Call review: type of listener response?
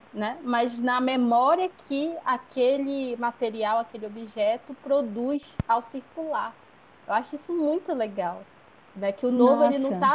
listening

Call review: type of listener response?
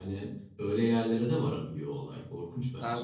taking over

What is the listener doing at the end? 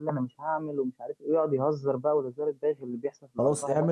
taking over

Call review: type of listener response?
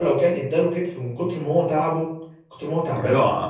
taking over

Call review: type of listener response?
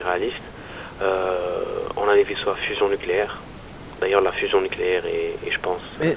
taking over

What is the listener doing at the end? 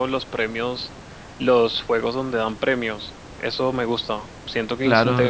listening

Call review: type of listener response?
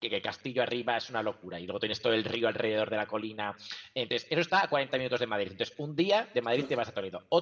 listening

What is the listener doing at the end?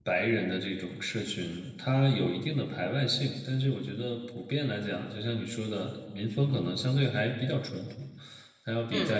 listening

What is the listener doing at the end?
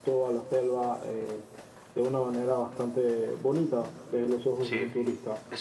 taking over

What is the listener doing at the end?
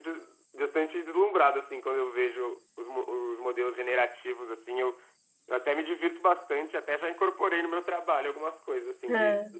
listening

